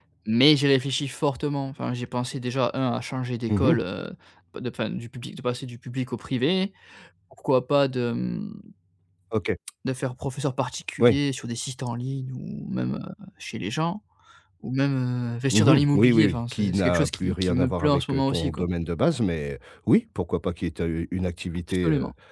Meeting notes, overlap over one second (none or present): present